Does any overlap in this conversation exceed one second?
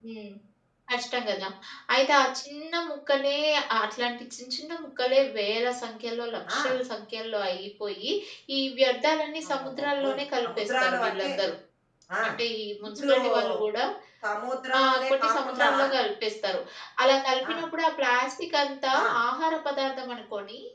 Yes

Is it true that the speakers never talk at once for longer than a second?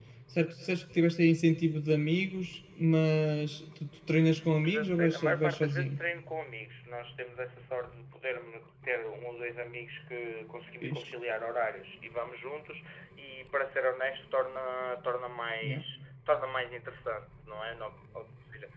No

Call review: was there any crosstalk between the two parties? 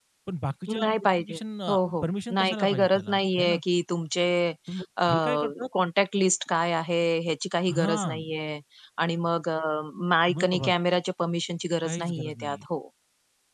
Yes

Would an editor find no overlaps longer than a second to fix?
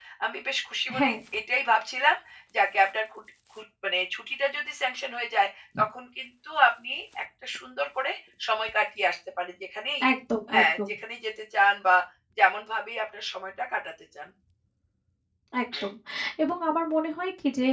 Yes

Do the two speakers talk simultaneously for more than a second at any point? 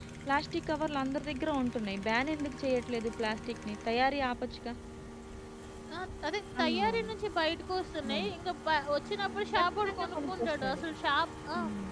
Yes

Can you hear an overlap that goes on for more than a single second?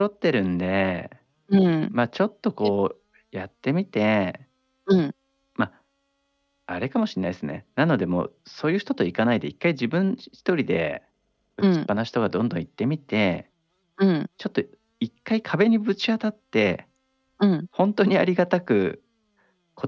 No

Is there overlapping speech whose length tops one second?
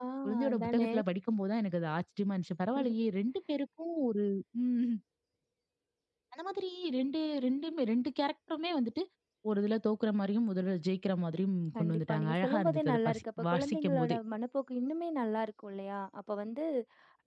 Yes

